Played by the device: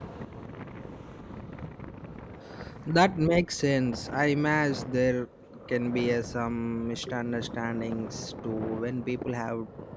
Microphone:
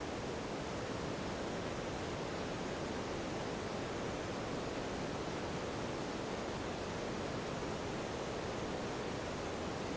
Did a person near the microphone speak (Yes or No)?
No